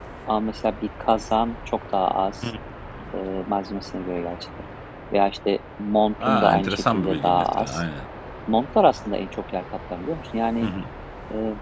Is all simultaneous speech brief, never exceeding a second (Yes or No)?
No